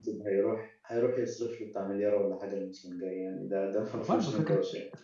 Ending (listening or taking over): taking over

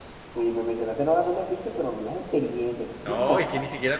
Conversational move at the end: taking over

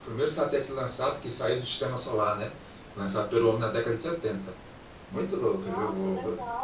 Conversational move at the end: taking over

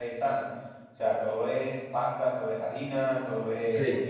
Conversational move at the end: listening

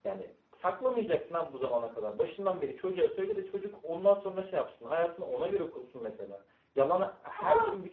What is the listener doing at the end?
listening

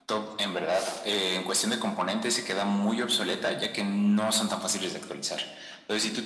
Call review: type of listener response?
listening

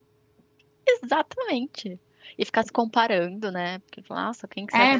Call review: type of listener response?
taking over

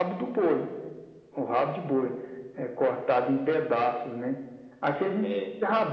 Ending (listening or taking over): listening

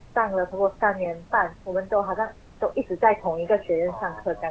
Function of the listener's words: taking over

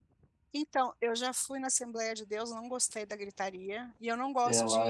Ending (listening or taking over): listening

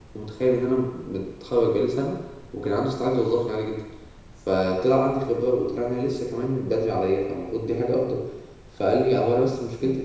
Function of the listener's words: listening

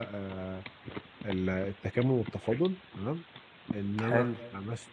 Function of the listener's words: listening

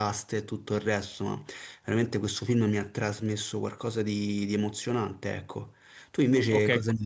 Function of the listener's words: taking over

